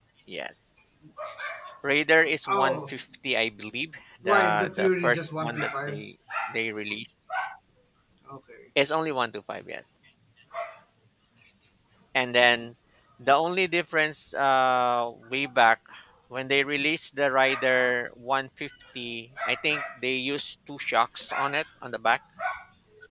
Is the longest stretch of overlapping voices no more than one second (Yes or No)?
No